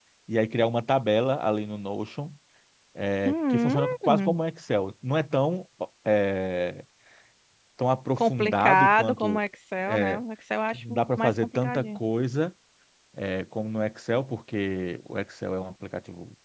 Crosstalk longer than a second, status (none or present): present